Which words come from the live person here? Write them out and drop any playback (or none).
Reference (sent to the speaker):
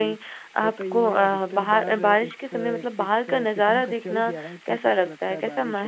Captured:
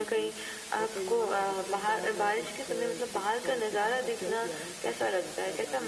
none